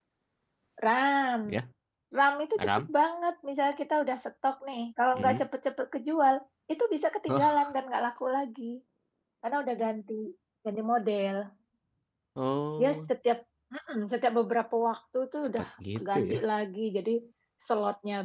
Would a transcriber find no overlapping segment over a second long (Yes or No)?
Yes